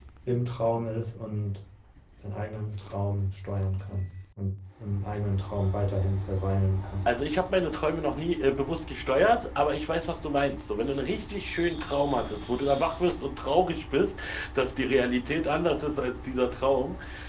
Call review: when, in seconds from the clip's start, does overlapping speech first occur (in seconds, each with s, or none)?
none